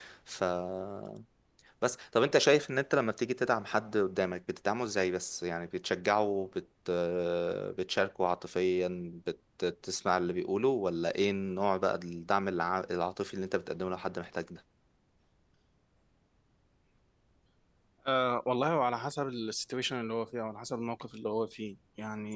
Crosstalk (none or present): none